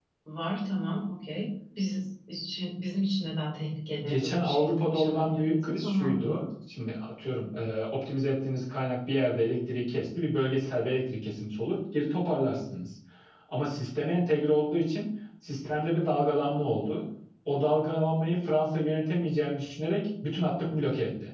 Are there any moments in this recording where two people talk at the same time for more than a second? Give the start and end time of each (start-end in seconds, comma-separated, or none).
4.0-6.4